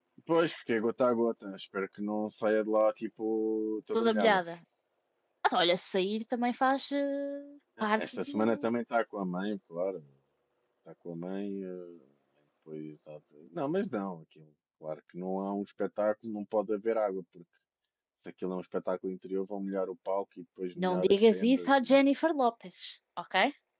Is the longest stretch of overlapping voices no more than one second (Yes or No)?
No